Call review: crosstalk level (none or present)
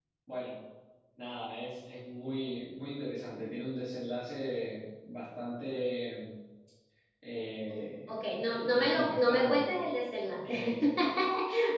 present